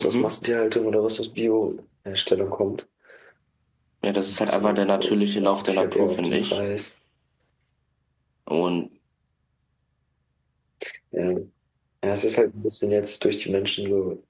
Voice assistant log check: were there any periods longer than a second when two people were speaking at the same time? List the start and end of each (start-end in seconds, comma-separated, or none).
4.3-6.6